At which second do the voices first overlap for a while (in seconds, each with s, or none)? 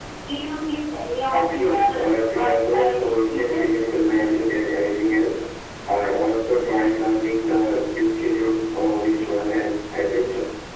1.3 s